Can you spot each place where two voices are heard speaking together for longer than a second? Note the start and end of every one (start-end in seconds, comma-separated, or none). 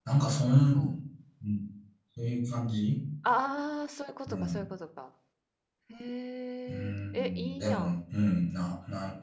6.7-8.0